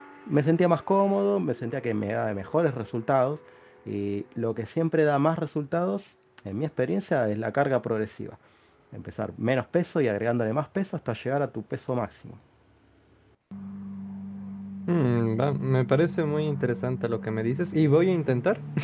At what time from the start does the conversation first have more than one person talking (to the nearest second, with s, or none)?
none